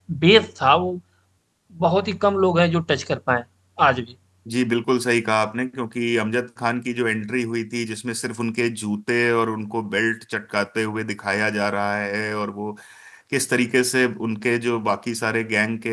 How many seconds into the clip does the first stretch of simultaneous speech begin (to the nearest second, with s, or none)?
none